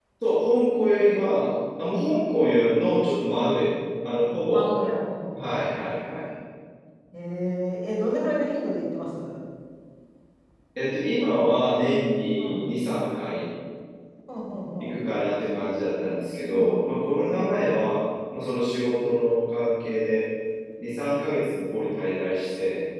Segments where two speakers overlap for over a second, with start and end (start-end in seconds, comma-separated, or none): 16.4-17.8